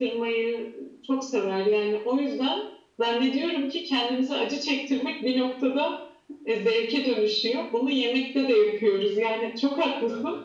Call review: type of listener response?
listening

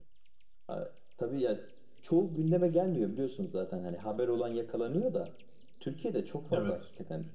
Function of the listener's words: listening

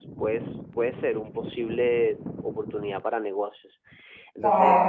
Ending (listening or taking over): listening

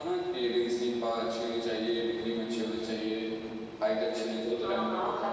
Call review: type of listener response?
taking over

